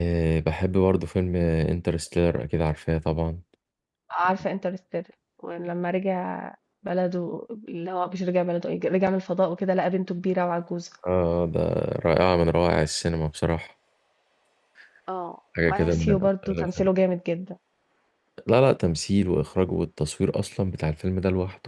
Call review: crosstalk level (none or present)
present